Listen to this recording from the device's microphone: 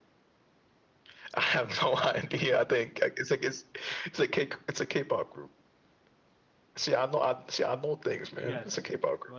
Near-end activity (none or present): present